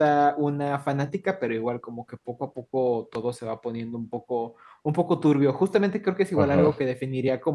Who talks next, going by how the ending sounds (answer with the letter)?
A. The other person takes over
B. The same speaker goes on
B